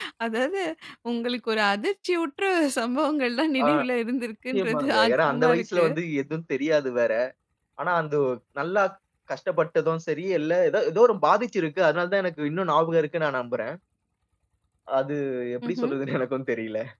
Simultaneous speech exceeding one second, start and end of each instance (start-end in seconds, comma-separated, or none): 4.5-5.8